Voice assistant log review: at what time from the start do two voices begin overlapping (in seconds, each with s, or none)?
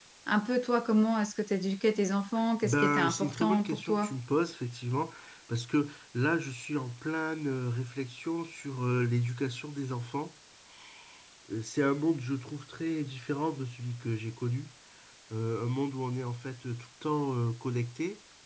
2.6 s